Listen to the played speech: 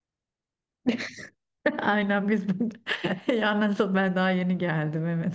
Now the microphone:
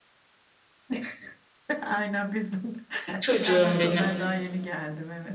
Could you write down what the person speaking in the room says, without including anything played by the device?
çocuğum benim.

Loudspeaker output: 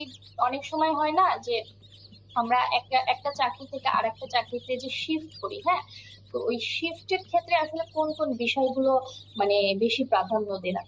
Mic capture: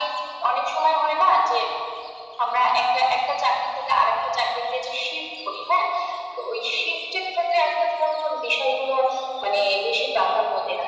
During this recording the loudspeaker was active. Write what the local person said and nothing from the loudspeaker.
none

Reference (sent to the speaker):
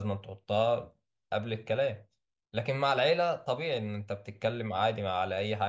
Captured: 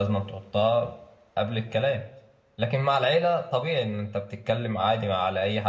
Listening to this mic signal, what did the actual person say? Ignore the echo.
none

